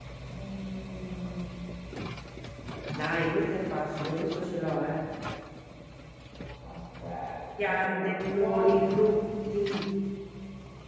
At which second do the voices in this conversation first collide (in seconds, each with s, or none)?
7.6 s